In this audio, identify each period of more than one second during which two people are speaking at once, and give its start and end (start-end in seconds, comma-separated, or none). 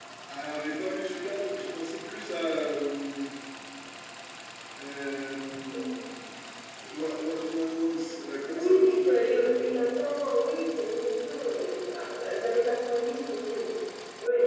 8.5-9.9